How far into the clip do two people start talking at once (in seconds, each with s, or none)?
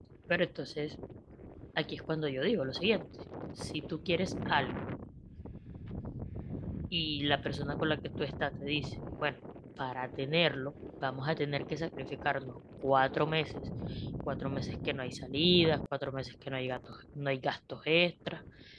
none